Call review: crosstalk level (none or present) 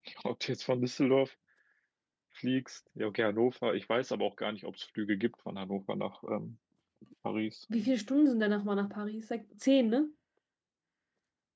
none